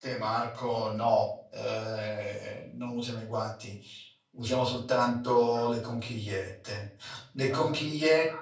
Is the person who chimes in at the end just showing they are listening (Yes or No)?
Yes